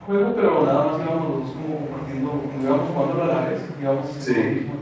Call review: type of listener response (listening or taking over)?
listening